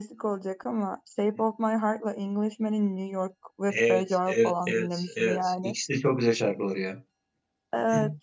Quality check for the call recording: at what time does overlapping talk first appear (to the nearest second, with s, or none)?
4 s